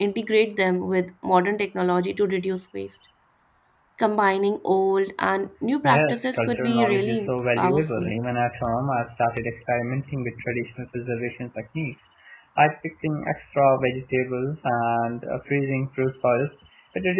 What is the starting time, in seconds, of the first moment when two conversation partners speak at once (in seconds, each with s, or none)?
5.8 s